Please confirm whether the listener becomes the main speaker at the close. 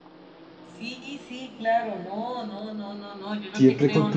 Yes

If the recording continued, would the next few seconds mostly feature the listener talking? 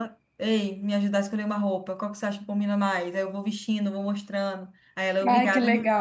Yes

